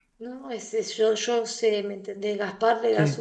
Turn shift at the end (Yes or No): No